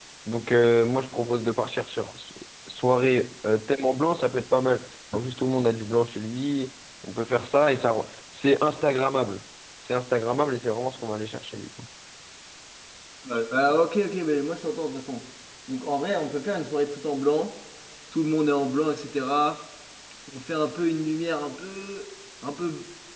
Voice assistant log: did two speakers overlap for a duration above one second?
No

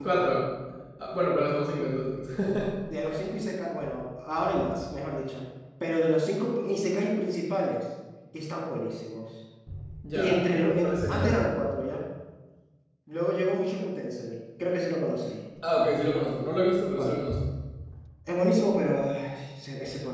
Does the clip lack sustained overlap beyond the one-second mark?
No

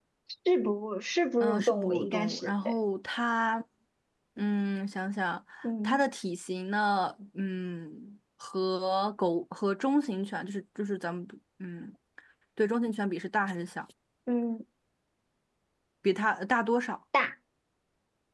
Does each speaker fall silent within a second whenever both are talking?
No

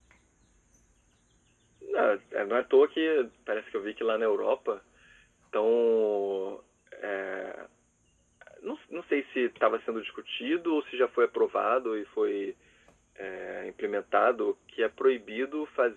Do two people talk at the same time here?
No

